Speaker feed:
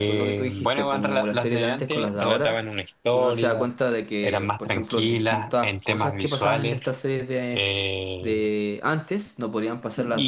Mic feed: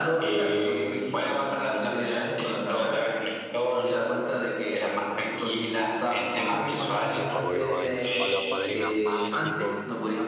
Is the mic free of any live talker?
No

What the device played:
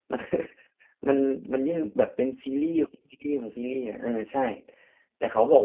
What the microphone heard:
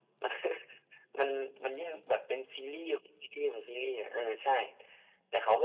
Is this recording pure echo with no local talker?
Yes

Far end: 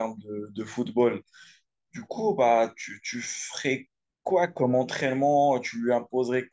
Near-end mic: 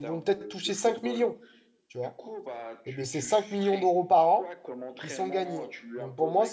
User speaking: Yes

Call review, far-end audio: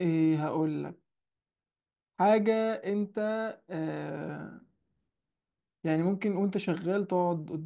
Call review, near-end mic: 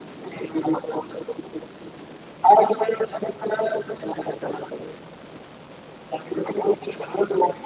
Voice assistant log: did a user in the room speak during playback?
No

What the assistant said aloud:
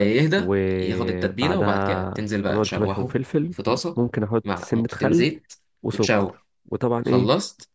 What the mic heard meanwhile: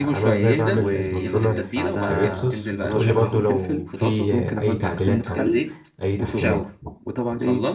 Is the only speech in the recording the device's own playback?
No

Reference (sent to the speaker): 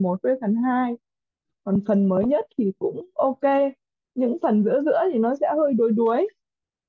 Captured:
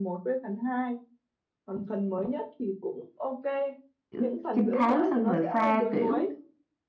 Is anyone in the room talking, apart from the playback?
Yes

